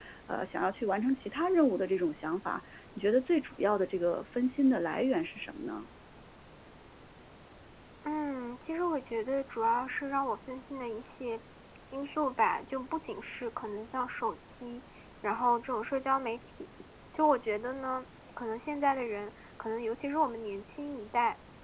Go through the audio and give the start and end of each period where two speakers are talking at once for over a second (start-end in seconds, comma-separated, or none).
none